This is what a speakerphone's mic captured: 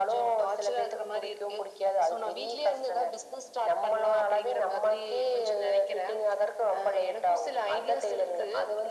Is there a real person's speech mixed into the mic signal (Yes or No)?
No